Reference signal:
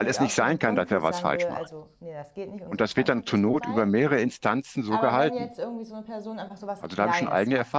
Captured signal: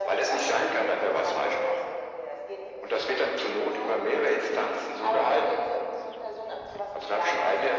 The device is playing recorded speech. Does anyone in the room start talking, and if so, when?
none

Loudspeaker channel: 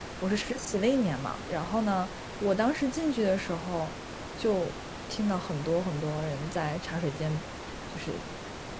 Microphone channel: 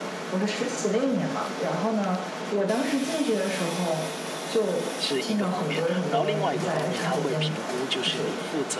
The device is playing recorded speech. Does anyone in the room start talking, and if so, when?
5.0 s

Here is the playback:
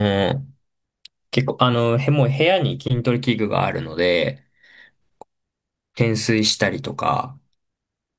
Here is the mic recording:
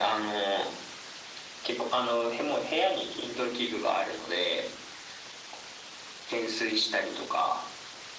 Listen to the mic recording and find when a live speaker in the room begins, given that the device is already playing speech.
none

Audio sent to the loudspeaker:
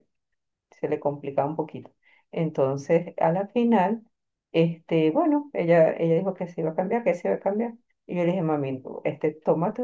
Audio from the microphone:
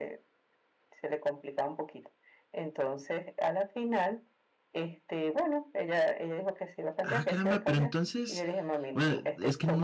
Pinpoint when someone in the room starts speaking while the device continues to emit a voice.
7.0 s

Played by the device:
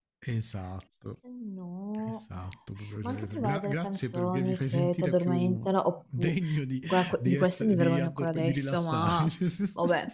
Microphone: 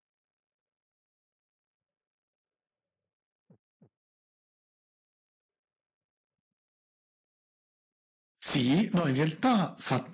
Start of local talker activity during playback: 8.4 s

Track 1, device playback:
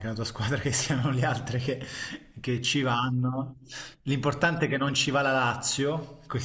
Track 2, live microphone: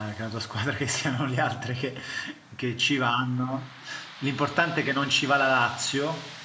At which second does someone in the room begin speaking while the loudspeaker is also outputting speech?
none

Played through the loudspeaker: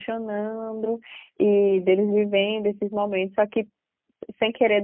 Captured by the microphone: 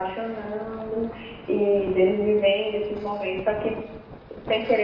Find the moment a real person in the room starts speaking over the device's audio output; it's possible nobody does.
none

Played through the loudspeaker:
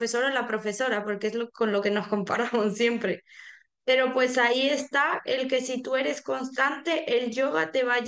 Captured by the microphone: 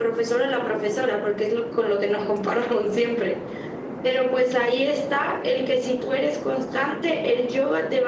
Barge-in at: none

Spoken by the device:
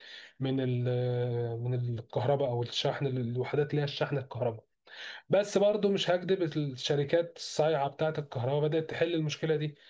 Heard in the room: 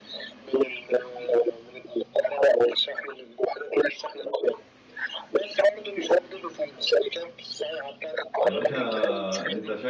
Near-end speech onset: 8.4 s

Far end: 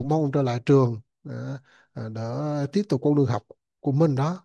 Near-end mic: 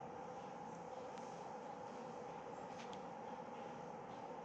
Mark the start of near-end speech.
none

